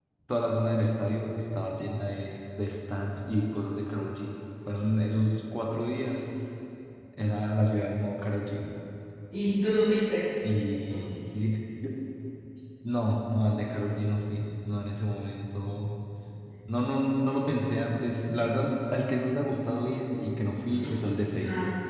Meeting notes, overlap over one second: none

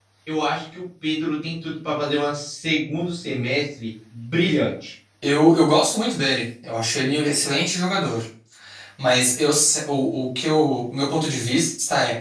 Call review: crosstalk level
none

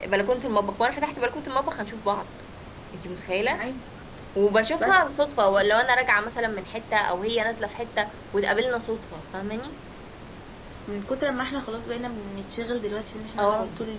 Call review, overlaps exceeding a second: none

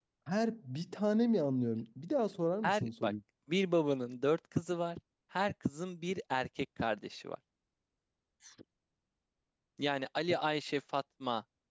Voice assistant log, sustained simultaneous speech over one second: none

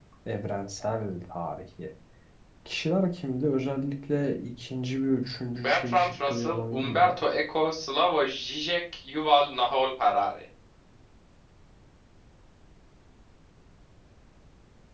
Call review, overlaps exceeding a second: present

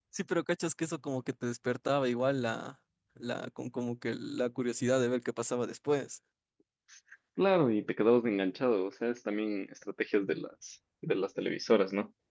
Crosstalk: none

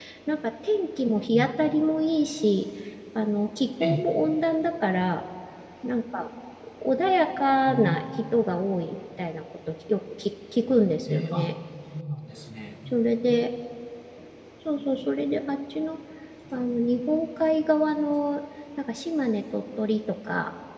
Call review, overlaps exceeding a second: none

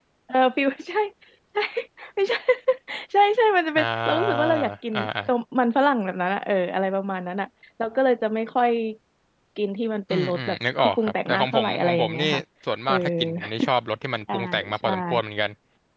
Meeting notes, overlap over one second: present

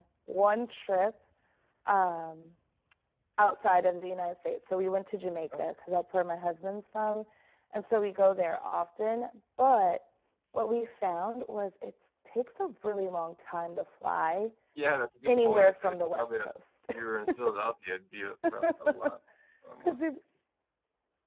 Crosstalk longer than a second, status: present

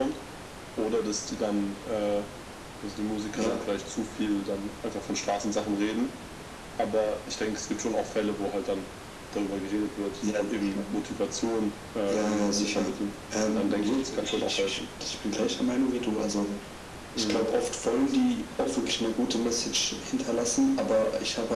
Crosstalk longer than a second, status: present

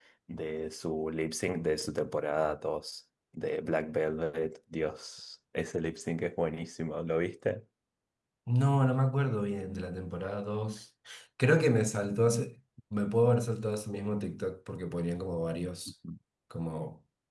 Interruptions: none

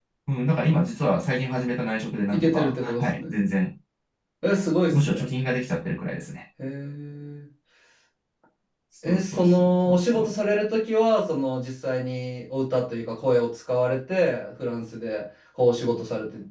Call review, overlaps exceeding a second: present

